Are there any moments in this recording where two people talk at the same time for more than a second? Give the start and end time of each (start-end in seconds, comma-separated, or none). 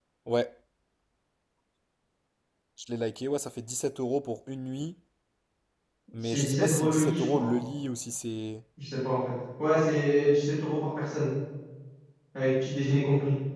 6.2-7.5